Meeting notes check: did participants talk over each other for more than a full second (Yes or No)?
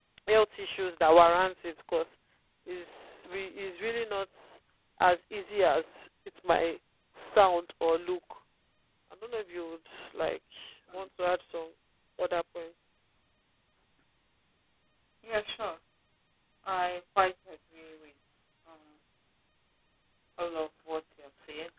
No